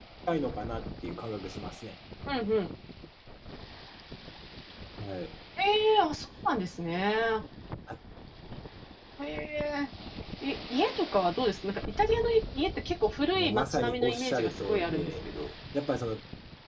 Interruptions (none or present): present